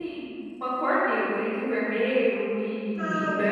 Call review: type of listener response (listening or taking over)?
taking over